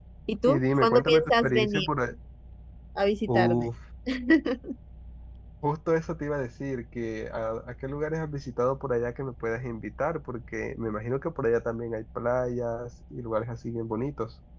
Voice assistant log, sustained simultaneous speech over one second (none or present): present